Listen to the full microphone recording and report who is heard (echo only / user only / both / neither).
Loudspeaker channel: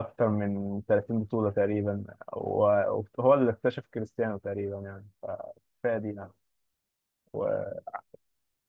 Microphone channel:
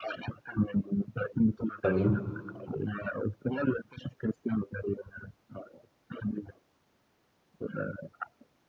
both